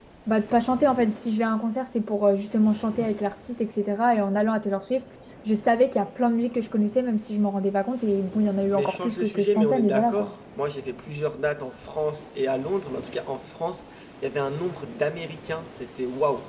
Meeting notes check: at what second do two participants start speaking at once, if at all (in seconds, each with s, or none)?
8.7 s